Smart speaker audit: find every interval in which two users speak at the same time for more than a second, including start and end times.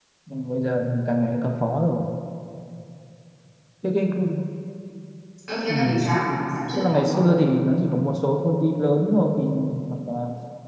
none

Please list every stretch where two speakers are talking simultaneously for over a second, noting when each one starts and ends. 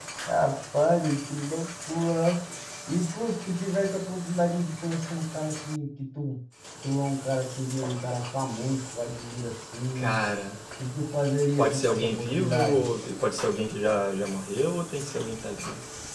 11.6-12.8

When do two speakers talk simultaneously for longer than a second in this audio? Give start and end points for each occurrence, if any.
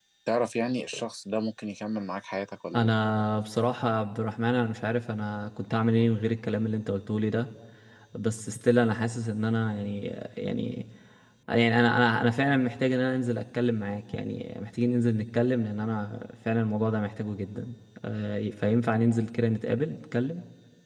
none

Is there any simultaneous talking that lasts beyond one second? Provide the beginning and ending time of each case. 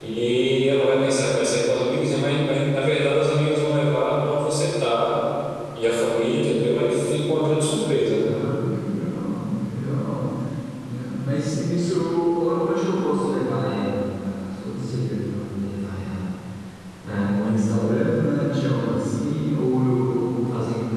none

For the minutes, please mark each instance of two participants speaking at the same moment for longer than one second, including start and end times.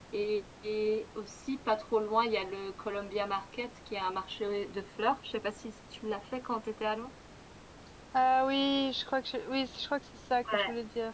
none

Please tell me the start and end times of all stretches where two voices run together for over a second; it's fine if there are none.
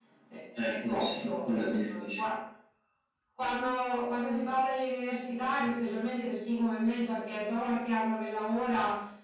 0.7-2.3

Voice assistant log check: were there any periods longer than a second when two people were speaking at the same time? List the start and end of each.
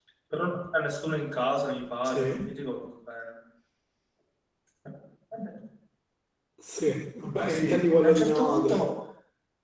7.5-8.8

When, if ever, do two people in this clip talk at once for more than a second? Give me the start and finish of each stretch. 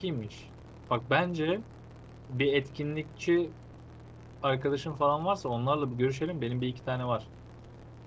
none

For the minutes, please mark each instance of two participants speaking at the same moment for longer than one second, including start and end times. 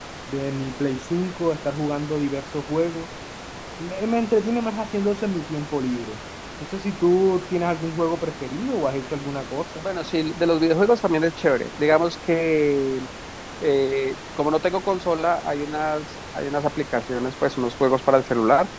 none

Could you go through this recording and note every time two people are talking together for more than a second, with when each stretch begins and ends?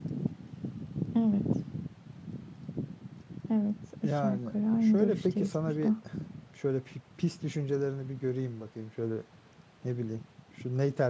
4.0-5.9

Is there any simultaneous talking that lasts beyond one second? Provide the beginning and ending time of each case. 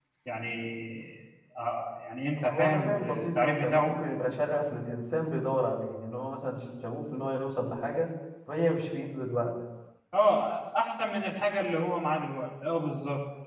2.4-3.9

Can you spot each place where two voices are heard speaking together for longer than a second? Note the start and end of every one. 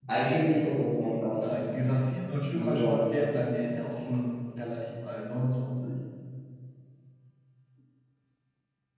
none

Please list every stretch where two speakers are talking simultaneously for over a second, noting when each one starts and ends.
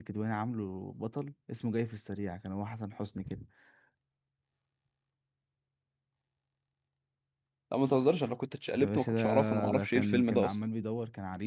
8.8-10.6

